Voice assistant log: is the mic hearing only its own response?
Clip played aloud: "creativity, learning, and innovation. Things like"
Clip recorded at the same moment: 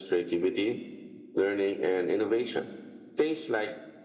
Yes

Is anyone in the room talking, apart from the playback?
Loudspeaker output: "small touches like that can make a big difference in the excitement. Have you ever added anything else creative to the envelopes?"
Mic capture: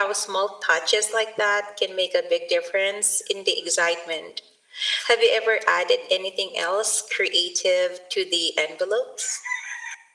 No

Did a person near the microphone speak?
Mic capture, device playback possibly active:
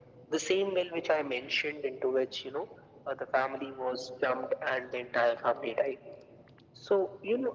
No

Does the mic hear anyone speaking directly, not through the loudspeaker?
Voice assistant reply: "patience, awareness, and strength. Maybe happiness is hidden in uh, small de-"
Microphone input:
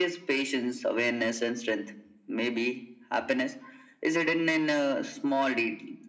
No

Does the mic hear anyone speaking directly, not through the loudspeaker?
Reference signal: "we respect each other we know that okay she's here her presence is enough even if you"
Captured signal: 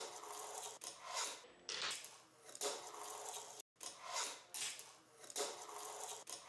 No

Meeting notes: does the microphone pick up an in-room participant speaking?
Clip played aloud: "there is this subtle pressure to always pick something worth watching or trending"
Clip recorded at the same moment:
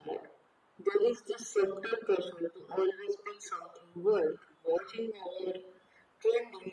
No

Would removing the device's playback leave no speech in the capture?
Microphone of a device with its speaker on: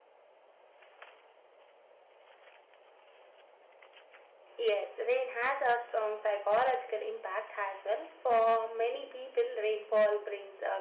No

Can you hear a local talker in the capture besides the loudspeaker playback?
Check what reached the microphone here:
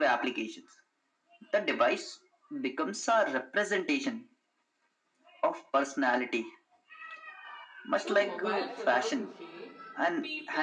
Yes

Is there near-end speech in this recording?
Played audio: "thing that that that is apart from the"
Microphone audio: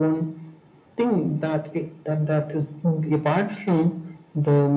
No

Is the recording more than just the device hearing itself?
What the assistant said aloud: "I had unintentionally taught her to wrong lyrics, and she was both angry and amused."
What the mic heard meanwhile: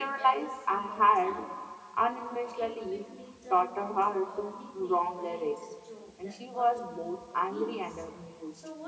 Yes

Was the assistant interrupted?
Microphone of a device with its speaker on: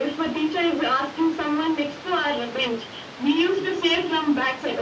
No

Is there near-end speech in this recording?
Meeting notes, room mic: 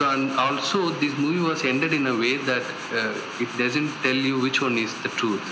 No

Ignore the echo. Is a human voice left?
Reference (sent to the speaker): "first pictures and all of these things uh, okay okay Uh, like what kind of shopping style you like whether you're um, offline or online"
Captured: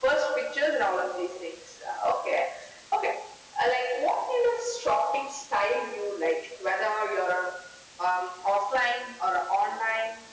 No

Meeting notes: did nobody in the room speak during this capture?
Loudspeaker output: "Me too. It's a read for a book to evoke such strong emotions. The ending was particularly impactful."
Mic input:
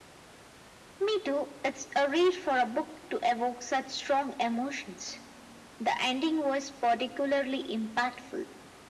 Yes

